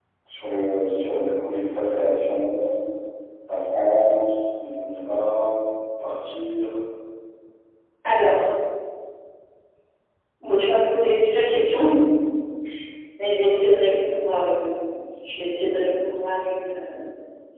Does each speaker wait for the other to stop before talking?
Yes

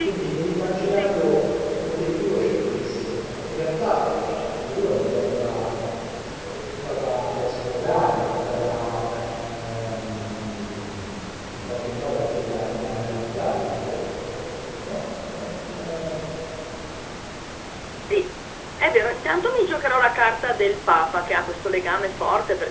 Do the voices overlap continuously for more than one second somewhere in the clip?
No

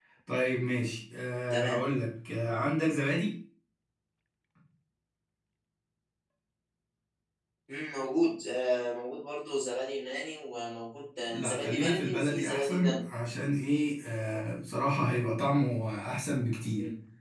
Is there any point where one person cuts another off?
Yes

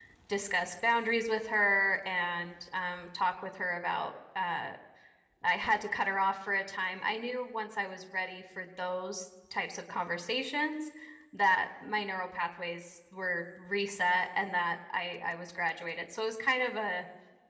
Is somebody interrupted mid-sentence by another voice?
No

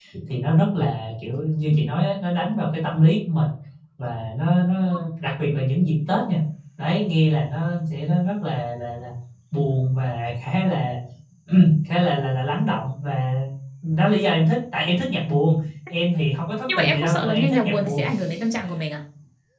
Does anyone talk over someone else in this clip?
Yes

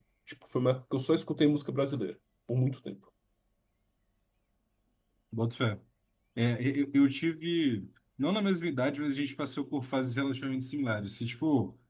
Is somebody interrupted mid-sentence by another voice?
No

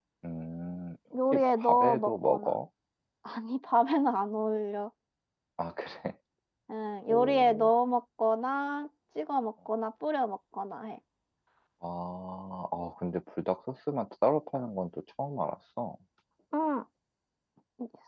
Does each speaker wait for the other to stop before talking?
No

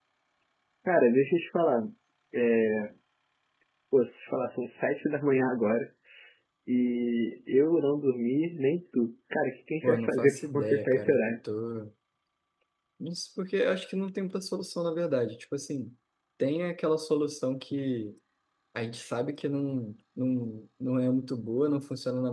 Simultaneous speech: Yes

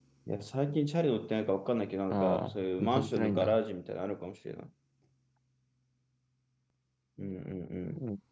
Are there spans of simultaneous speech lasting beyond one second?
Yes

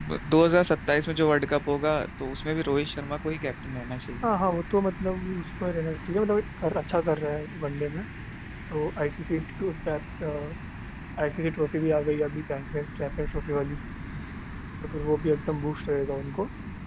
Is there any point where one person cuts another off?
No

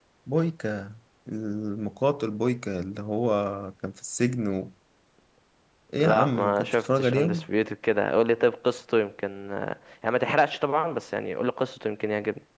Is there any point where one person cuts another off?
Yes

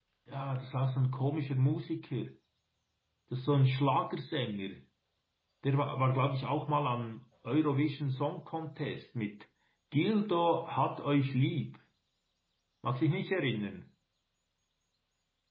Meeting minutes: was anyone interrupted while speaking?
No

